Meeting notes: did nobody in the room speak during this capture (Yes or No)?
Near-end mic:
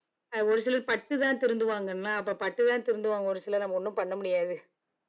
Yes